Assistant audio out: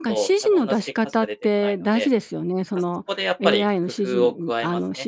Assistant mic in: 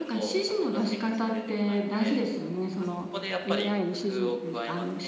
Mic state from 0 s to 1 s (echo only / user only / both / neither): echo only